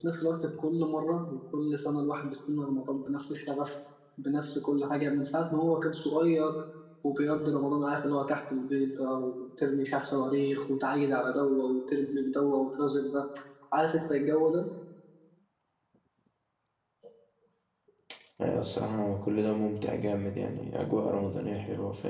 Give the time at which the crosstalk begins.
none

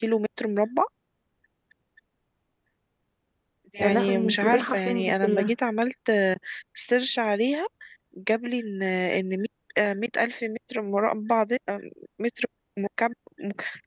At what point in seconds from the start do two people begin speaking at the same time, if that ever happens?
3.8 s

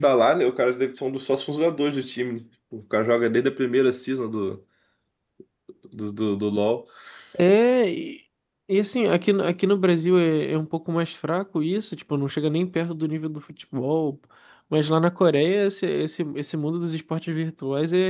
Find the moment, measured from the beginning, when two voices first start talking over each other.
none

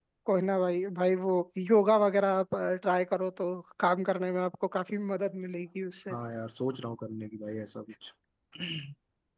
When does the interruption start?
none

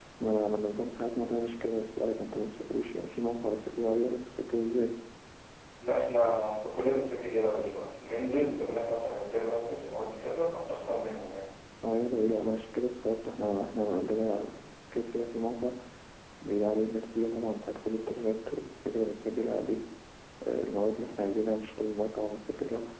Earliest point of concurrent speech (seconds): none

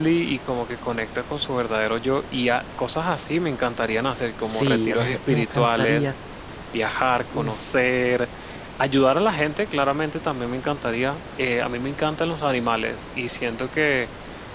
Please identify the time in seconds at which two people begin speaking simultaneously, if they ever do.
4.5 s

